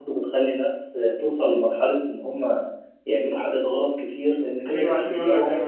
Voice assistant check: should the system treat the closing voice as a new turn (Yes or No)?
Yes